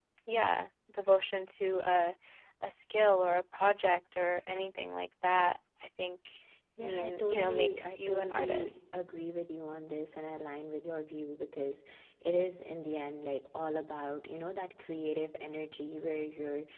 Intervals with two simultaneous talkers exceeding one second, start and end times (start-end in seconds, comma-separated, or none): 6.8-8.8